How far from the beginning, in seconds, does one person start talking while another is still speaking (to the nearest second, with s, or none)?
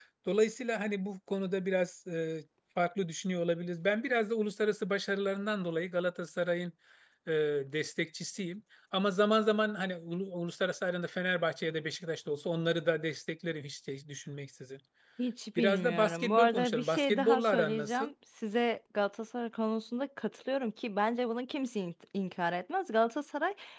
16 s